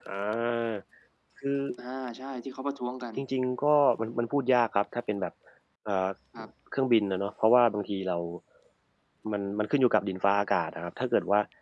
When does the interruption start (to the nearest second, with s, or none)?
none